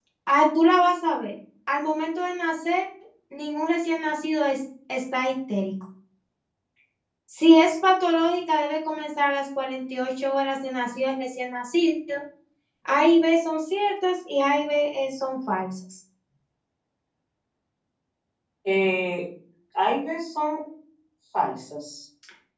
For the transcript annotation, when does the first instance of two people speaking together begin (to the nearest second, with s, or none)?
none